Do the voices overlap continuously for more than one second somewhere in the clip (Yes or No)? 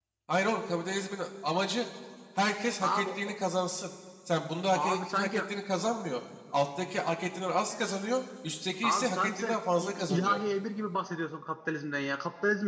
Yes